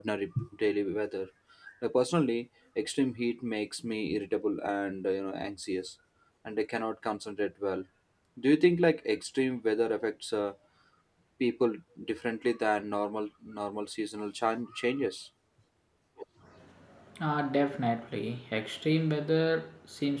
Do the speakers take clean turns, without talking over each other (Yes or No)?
Yes